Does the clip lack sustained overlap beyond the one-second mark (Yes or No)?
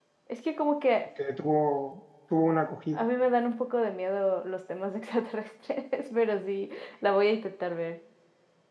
Yes